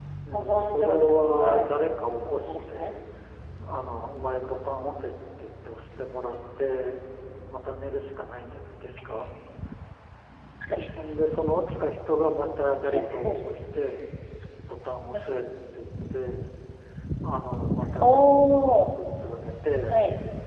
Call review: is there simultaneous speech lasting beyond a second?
Yes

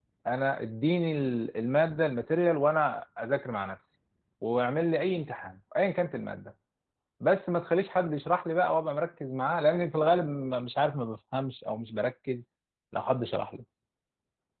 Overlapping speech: No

